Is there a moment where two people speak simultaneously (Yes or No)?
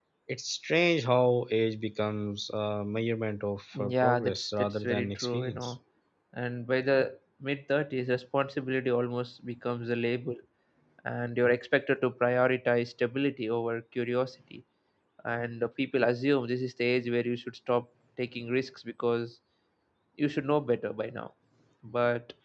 Yes